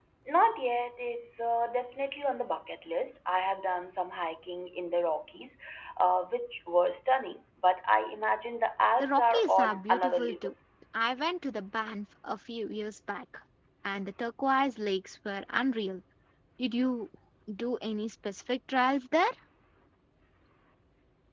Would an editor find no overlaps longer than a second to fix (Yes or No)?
No